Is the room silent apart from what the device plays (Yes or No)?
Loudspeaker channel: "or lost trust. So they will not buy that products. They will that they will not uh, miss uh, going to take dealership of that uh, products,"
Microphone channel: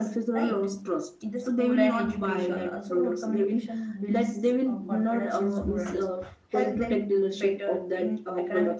No